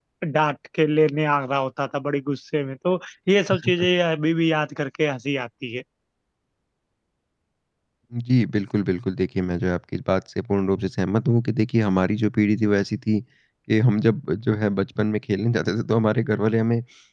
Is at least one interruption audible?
No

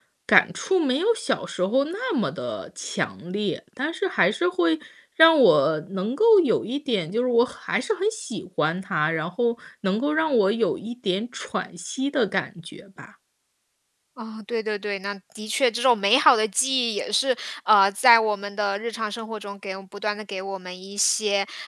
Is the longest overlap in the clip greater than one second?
No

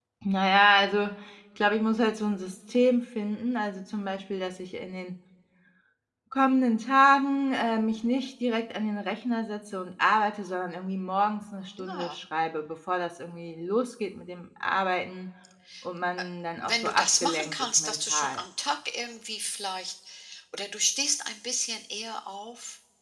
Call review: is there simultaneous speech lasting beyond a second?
Yes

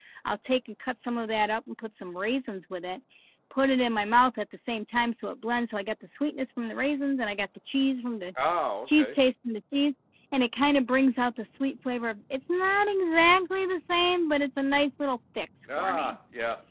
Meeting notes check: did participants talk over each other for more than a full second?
No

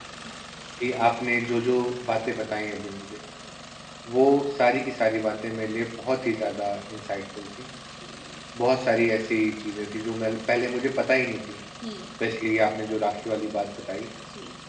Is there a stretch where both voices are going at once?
No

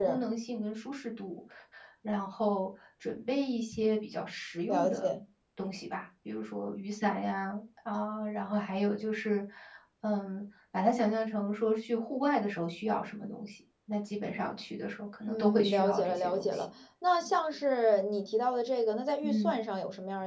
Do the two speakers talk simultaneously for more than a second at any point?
Yes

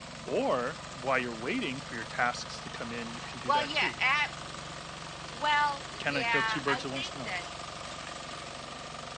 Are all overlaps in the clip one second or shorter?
No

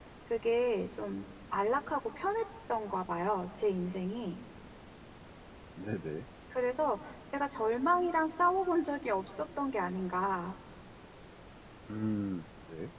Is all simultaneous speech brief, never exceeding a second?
Yes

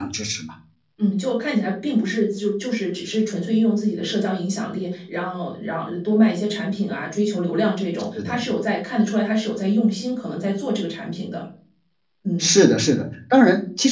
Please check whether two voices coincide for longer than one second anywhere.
No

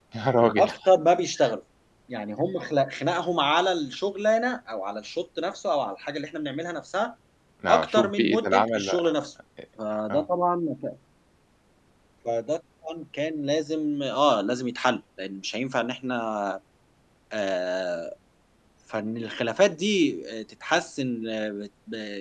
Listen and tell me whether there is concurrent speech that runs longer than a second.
Yes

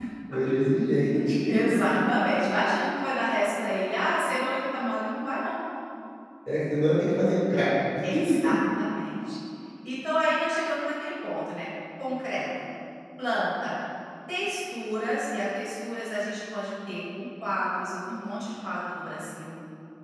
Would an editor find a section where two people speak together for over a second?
No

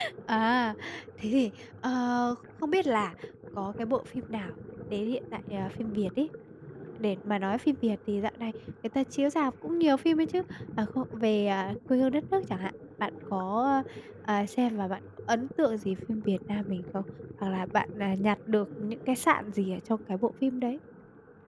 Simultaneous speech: No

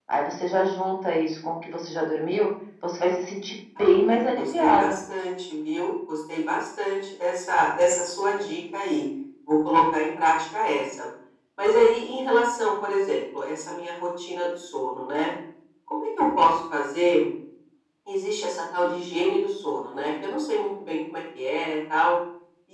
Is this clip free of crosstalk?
No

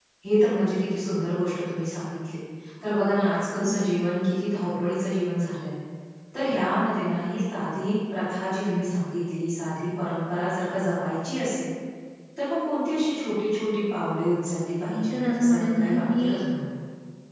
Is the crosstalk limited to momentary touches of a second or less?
No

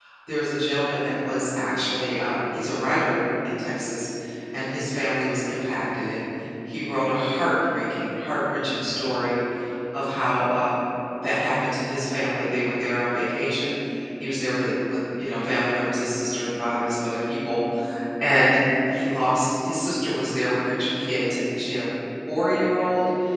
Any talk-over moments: No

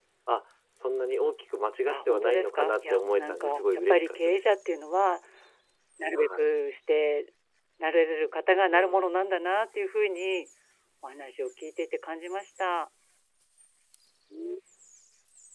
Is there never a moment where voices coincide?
No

